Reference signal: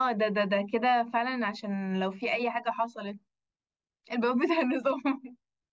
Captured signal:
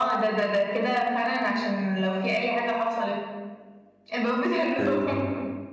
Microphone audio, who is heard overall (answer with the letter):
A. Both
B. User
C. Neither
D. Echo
A